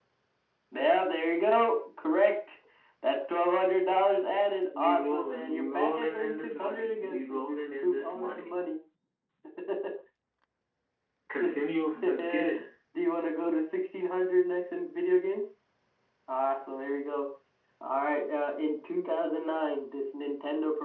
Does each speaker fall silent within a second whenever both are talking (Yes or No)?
No